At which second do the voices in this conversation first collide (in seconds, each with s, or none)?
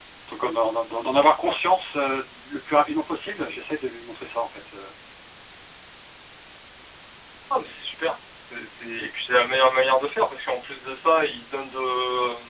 none